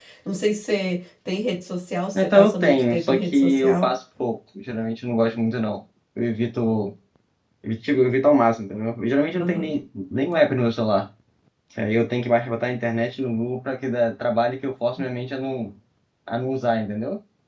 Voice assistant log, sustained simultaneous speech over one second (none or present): present